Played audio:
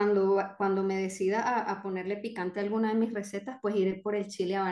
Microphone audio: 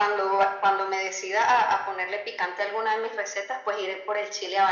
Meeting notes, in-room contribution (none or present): none